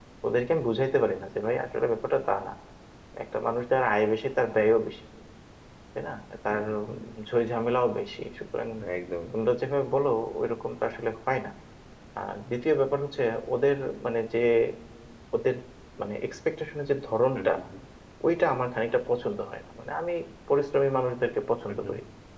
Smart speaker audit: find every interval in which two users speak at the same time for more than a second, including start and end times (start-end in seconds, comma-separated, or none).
none